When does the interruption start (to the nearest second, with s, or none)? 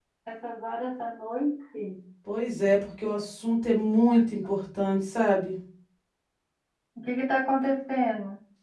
none